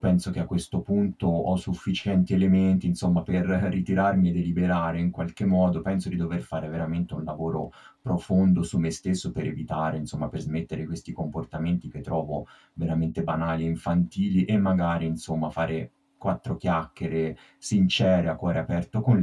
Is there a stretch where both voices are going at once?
No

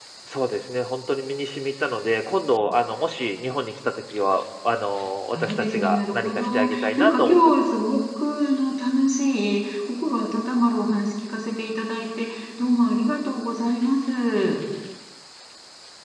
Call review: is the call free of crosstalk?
No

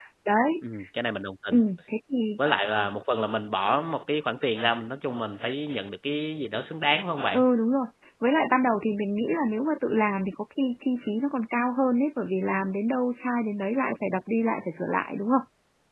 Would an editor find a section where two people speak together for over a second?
No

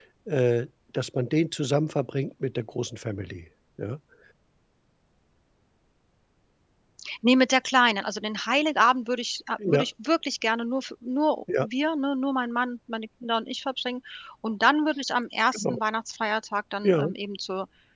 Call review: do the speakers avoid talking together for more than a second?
Yes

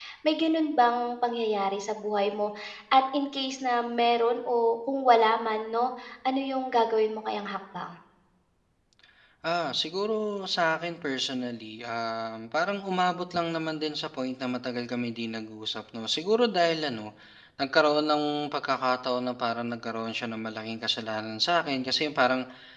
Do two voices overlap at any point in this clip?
No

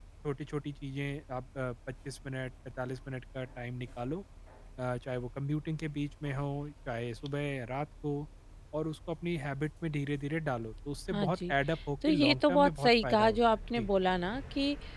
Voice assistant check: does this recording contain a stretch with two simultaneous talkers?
Yes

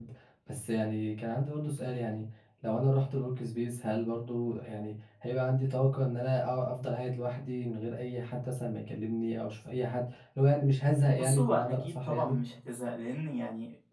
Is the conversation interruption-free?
No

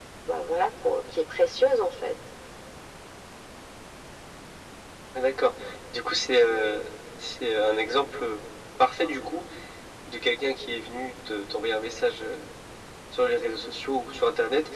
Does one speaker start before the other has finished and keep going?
No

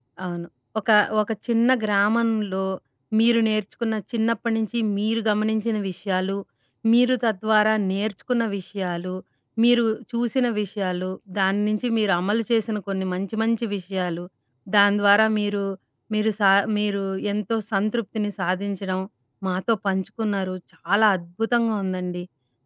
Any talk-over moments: No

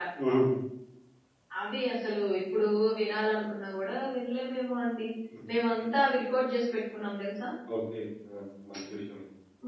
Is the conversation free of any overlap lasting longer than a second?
Yes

